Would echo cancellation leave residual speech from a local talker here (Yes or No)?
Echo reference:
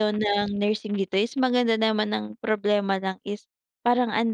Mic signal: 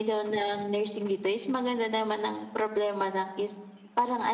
No